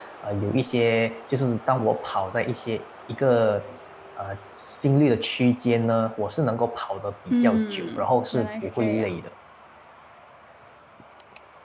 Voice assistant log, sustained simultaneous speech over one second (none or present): present